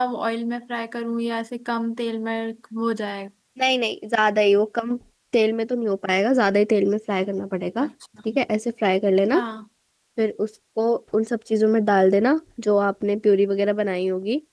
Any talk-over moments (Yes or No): No